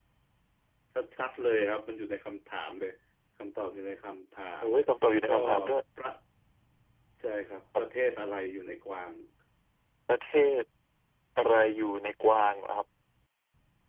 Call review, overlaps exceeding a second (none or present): none